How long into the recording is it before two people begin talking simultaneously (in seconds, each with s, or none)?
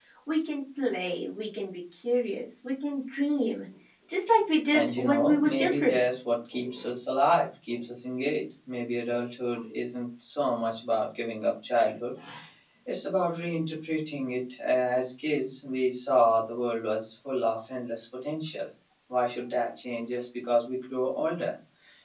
4.7 s